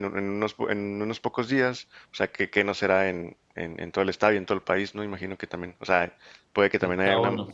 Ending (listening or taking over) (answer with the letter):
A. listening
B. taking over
A